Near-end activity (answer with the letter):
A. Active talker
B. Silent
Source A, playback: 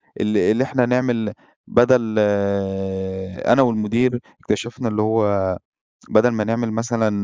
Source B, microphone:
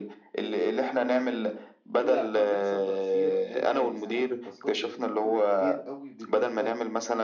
A